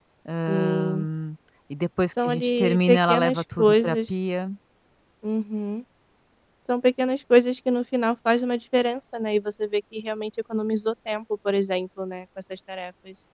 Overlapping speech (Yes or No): Yes